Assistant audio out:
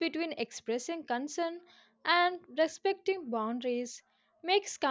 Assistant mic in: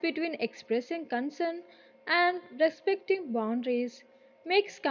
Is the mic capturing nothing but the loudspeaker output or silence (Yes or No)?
Yes